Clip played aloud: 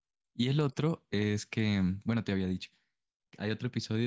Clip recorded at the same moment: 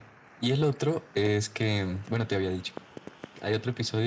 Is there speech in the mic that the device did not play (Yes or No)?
No